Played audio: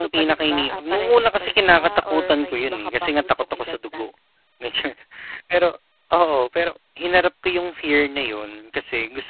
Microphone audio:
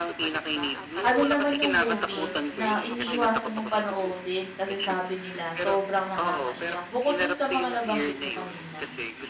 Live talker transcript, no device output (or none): ano naman yung movie na iniiwasan mong panoodin kasi sabi nila sobrang nakakaiyak? Bukod dun sa mga nabanggit mo kanina.